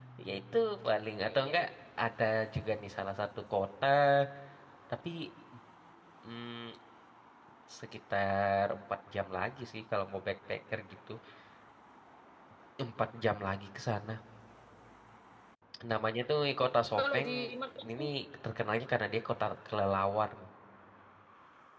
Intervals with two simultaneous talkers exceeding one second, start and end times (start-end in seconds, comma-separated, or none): none